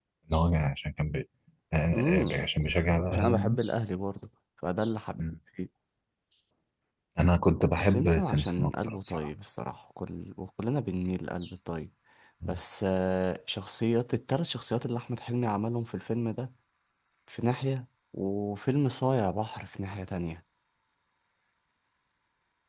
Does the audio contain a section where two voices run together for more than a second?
Yes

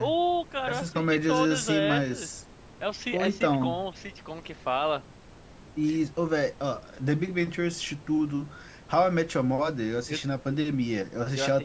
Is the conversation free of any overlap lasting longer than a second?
No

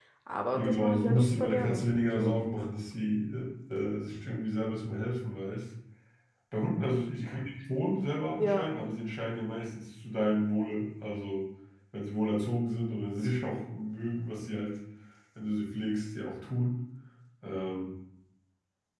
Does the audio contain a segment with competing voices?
Yes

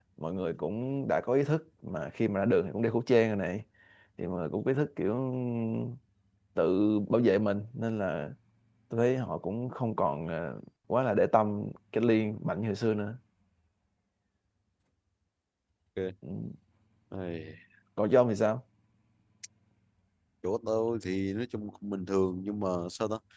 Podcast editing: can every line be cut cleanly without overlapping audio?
Yes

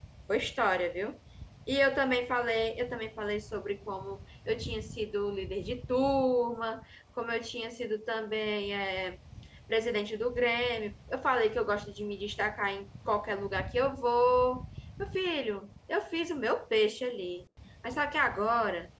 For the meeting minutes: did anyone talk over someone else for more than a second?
No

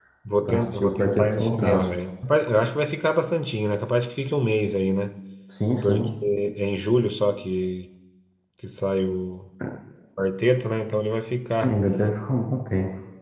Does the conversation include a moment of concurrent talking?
Yes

